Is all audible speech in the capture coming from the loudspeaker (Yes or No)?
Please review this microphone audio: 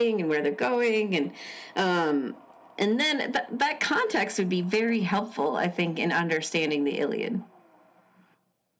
Yes